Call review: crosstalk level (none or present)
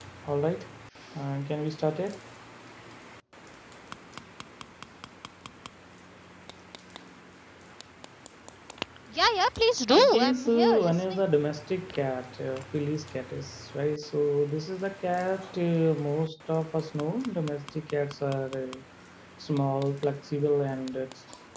present